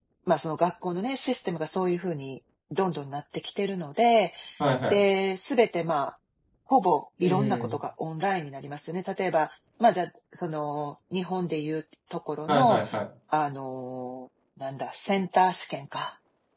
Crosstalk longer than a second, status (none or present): none